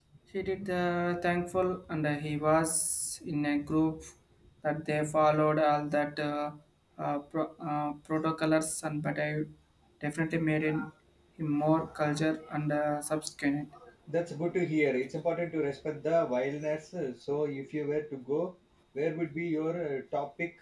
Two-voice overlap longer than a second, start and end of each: none

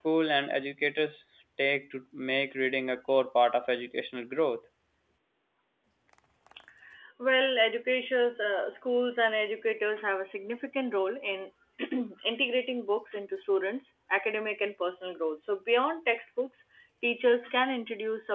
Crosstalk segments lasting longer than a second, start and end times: none

